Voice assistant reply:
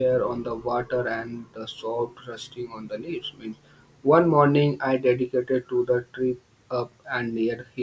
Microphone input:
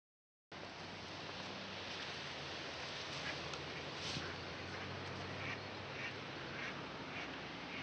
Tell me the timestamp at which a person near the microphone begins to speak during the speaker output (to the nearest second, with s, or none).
none